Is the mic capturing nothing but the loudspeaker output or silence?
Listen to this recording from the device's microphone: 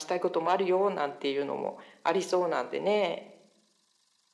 Yes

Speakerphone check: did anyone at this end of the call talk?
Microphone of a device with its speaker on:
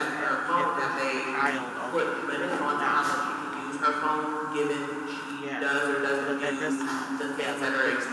Yes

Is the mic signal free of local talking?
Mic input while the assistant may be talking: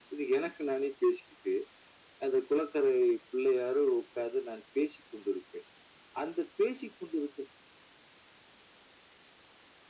Yes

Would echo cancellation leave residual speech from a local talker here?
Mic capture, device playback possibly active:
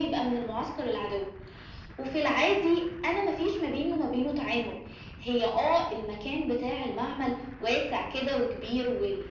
No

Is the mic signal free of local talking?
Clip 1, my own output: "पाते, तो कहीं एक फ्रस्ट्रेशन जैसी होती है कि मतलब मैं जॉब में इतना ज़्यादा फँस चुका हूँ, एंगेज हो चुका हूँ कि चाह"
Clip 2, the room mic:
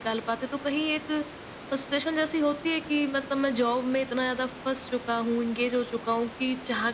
Yes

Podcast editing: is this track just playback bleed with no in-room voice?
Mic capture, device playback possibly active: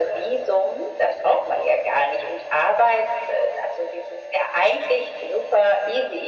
Yes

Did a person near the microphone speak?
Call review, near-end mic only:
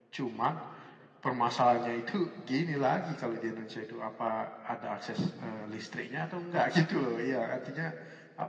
No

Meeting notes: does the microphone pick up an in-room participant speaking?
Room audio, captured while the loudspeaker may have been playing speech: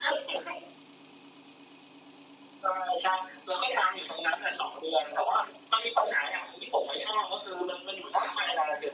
No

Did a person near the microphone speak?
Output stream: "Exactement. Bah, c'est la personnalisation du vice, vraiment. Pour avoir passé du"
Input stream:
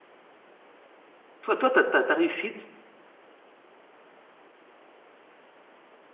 Yes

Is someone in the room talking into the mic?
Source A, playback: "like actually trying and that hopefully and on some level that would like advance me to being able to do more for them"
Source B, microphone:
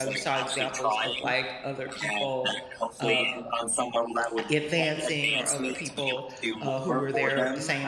Yes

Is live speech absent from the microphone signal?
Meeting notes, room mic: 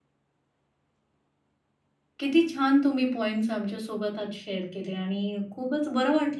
No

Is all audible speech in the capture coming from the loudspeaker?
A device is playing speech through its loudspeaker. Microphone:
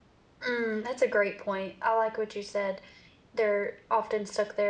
No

